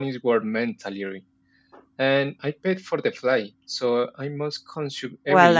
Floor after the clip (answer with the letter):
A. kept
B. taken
B